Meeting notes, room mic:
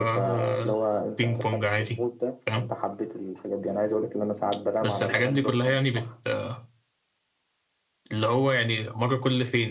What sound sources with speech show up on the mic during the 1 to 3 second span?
echo only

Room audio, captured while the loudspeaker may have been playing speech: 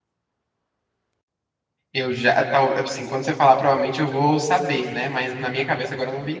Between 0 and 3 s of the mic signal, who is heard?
user only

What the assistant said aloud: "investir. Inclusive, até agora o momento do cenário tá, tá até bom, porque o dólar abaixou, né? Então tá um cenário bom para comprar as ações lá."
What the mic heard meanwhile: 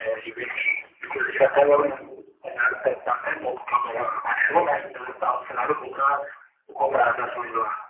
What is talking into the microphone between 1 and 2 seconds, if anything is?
echo only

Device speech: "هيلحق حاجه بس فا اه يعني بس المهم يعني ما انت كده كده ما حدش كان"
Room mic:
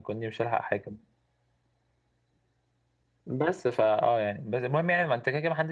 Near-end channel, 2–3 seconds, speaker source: neither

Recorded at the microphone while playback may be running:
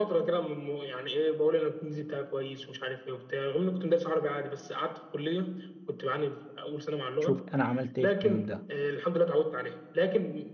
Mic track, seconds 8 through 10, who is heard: both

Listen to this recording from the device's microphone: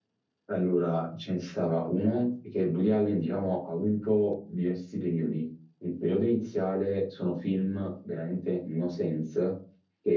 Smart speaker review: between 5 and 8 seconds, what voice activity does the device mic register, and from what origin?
user only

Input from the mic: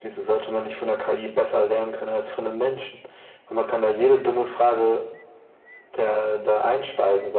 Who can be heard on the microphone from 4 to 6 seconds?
echo only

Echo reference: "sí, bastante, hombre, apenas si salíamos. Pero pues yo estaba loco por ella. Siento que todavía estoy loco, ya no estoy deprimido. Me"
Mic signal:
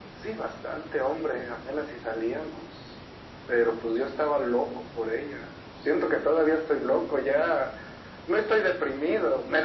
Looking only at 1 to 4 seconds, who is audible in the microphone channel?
echo only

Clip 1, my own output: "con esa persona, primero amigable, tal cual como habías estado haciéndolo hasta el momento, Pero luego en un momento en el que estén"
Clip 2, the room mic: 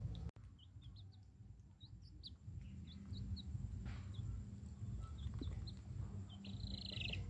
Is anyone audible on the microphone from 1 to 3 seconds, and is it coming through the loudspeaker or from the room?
neither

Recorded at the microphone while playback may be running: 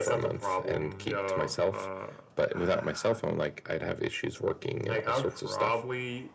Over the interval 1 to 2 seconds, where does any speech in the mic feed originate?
echo only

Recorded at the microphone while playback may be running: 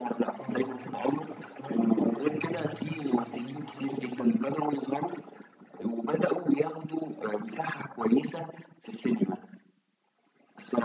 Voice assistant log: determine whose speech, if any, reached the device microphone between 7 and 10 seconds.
echo only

